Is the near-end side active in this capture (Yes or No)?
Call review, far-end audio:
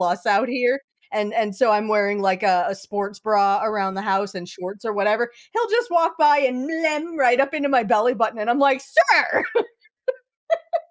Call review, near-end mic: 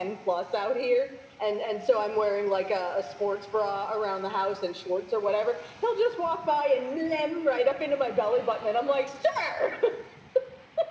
No